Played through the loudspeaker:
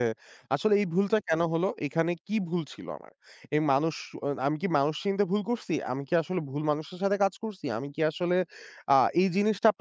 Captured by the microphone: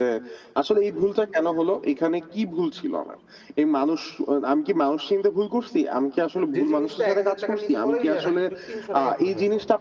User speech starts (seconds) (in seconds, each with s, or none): 6.5 s